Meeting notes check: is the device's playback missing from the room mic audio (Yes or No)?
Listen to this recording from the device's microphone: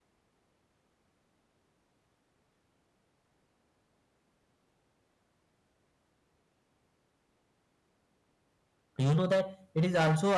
Yes